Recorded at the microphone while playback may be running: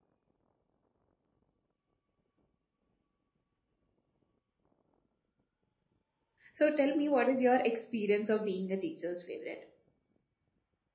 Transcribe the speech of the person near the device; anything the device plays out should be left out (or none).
so tell me what is your experience of being a teacher's favorite